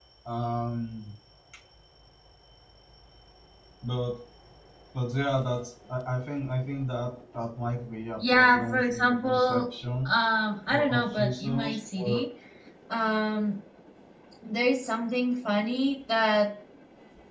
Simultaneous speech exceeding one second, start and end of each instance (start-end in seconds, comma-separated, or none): 8.2-9.6, 10.7-12.2